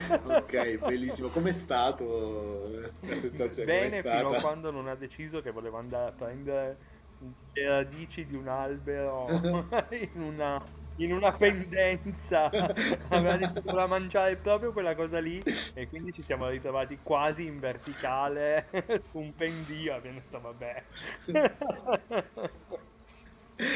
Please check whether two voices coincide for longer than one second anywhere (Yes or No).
Yes